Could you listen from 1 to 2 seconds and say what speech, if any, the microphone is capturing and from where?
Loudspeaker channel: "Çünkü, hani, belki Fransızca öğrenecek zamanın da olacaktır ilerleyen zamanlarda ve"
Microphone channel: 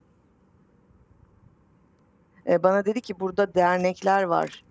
neither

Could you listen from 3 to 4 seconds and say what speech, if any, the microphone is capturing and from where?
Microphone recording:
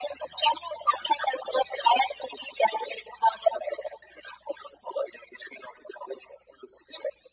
echo only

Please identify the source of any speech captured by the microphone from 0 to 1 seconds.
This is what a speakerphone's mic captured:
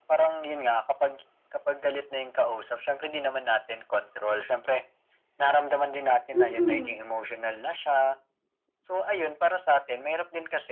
echo only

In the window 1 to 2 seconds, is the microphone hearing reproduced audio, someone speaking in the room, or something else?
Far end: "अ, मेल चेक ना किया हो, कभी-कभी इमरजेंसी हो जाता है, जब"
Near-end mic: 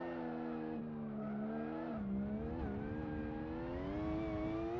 neither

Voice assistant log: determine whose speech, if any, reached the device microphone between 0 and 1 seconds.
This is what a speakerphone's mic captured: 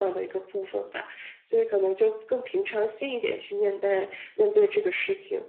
echo only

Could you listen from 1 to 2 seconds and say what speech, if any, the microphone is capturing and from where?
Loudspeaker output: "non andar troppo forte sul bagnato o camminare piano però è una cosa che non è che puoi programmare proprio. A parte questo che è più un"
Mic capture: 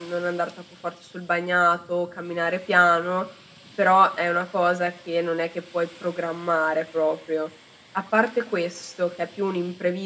echo only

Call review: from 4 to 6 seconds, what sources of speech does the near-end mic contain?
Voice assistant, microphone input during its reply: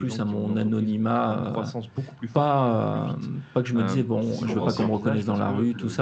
both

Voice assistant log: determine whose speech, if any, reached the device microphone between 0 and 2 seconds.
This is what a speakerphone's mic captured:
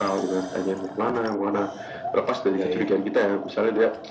echo only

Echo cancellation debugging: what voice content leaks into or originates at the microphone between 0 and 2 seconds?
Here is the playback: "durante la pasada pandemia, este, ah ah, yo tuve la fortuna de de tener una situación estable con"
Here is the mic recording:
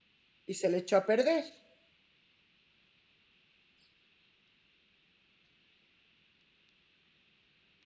user only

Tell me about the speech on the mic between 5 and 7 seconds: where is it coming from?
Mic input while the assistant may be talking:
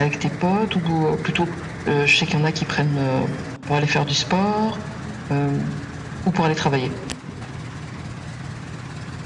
echo only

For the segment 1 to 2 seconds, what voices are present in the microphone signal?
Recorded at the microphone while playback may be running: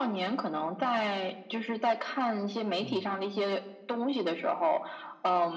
echo only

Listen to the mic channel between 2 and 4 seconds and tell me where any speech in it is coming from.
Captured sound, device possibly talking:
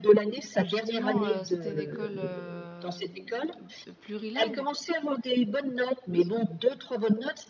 both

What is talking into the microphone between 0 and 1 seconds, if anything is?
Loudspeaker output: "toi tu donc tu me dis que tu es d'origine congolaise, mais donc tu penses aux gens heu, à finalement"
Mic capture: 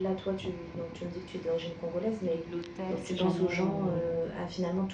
echo only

